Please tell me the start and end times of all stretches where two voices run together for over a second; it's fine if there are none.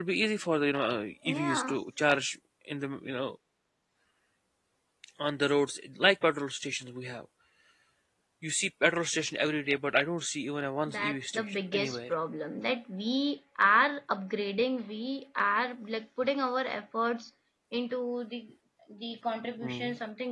10.9-12.1

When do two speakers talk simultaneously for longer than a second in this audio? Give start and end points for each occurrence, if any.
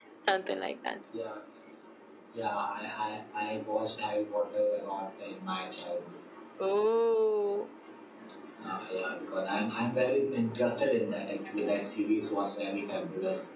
none

